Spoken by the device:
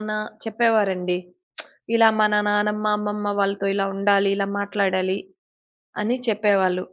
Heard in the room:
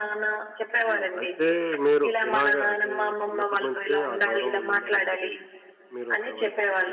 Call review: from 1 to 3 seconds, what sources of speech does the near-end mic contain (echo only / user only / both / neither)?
both